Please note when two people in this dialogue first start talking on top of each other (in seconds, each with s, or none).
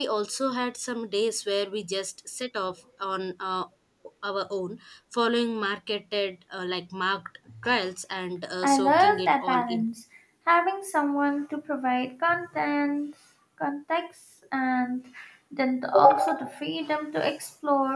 8.6 s